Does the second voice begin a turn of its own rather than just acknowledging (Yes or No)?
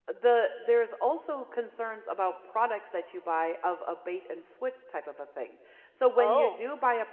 No